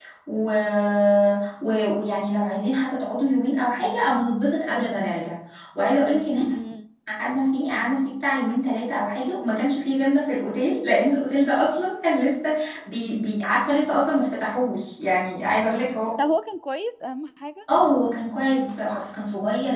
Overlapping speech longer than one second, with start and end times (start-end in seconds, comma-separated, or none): none